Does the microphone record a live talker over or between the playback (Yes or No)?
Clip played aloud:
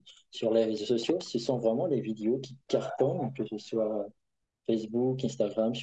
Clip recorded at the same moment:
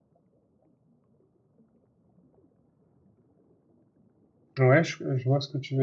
Yes